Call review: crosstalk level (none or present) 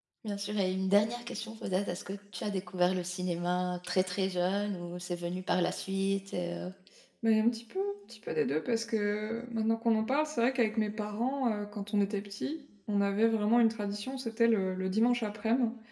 none